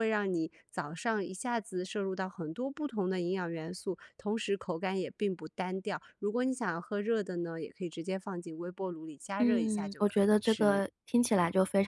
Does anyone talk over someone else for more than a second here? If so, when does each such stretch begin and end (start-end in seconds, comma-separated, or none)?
9.4-10.8